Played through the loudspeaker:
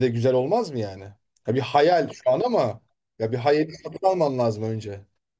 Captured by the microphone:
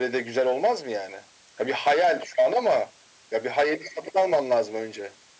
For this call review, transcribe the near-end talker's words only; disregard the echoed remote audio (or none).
none